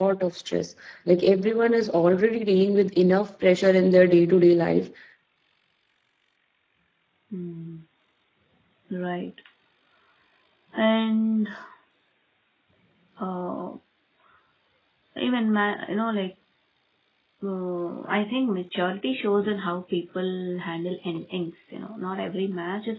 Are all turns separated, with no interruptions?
Yes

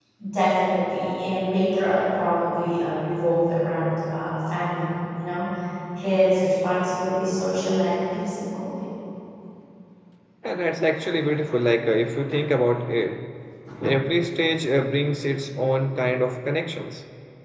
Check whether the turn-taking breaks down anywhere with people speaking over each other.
No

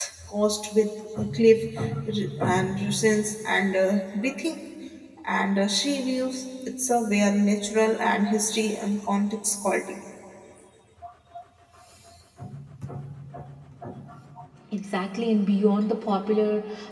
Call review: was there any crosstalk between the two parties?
No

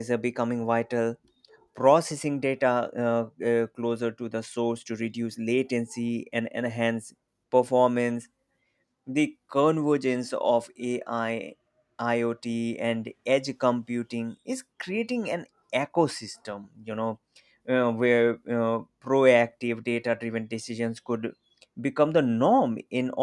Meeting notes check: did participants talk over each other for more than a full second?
No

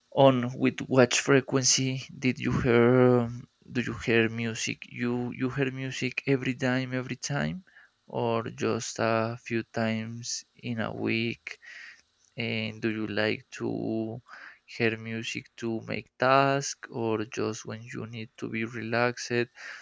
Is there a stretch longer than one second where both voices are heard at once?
No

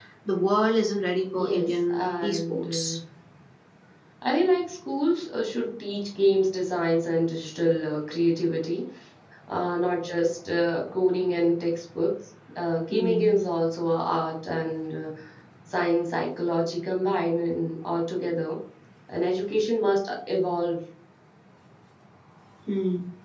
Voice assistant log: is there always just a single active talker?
No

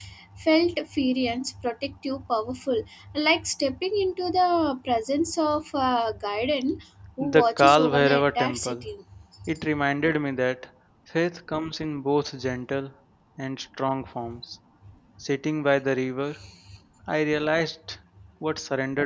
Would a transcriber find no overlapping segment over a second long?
No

